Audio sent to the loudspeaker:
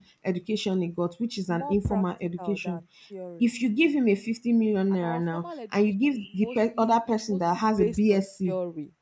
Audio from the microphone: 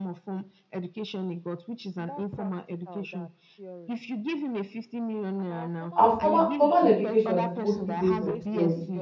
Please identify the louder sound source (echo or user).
user